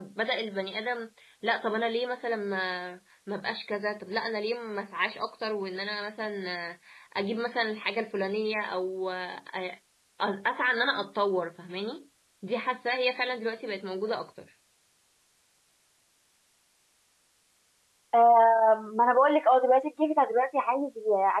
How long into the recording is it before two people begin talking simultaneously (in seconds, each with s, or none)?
none